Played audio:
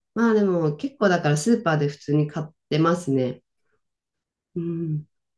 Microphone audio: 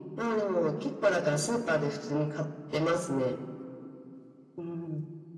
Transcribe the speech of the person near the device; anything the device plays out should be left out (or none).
none